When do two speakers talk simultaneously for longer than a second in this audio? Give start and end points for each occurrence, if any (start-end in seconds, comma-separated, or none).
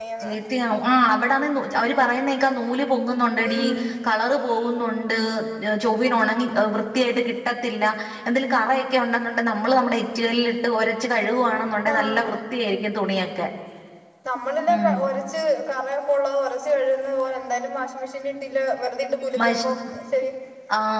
none